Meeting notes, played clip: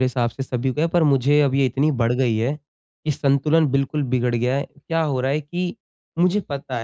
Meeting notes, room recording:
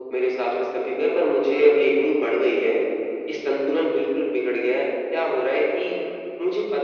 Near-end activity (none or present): none